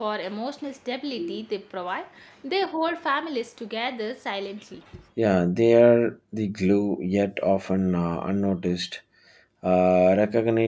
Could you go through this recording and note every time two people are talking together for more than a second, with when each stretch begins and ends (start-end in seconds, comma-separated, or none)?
none